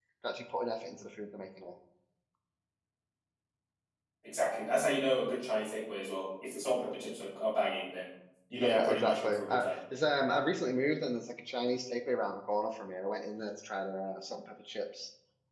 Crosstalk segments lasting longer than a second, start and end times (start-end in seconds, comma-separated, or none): 8.5-9.8